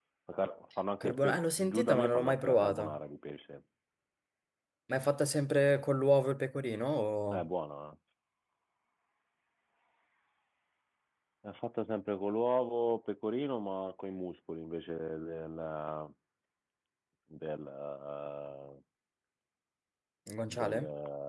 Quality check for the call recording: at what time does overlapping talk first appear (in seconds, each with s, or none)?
1.0 s